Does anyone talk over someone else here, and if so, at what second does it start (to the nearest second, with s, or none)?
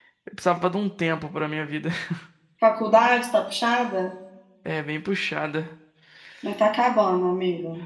none